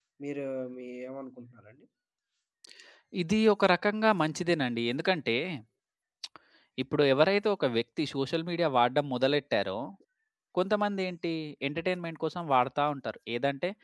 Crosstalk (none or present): none